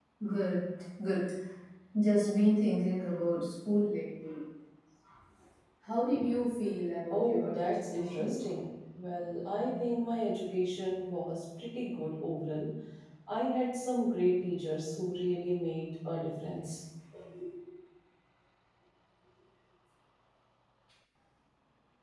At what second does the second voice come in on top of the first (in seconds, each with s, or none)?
7.1 s